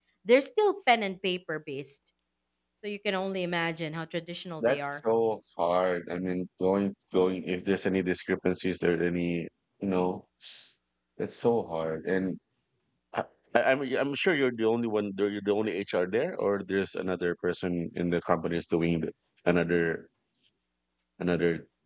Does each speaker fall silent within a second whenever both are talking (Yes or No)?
Yes